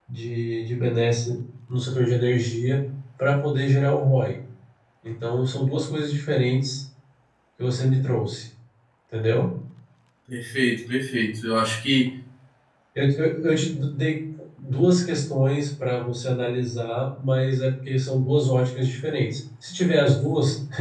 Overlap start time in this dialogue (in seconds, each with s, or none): none